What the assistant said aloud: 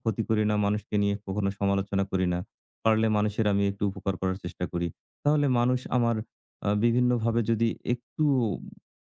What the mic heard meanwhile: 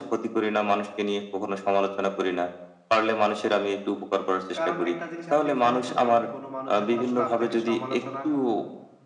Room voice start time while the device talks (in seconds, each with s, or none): 4.6 s